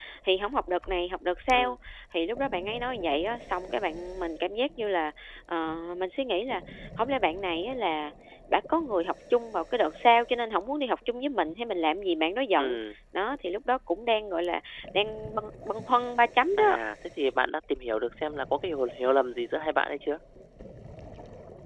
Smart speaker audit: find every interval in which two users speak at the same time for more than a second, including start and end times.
none

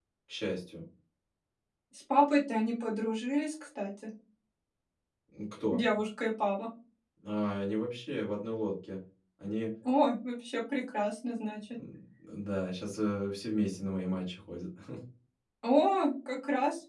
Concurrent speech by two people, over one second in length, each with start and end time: none

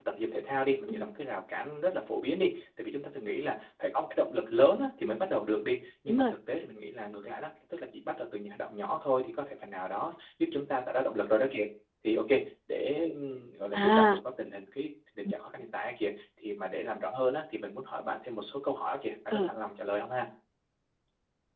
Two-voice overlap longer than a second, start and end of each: none

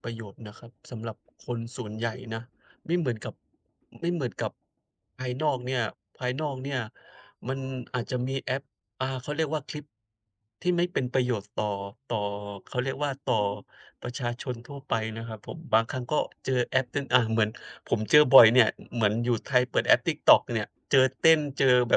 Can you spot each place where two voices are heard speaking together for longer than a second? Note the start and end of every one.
none

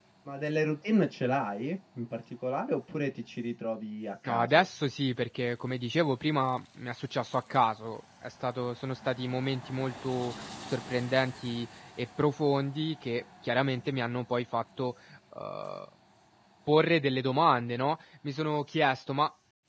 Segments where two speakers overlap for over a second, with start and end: none

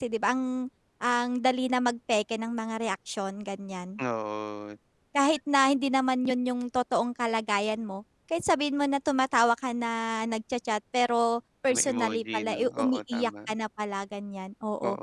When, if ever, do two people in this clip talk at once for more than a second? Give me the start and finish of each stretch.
11.7-13.5

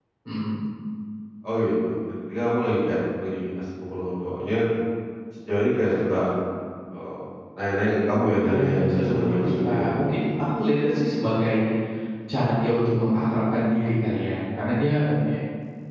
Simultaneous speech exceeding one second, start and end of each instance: 8.4-9.9

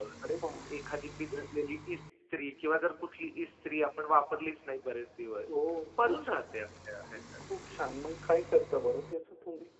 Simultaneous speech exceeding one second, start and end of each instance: none

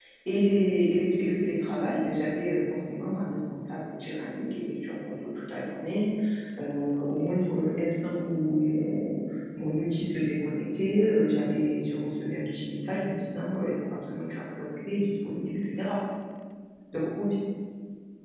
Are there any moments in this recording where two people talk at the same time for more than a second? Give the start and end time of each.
none

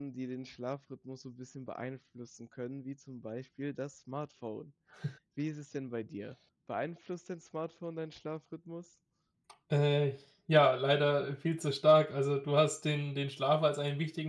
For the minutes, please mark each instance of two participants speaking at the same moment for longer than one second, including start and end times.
none

